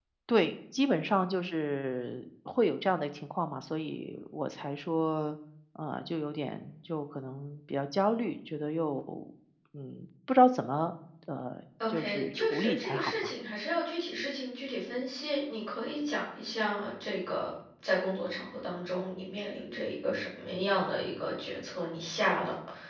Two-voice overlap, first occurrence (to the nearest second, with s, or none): 12 s